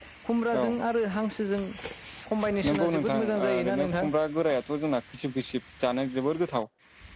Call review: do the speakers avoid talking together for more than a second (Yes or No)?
No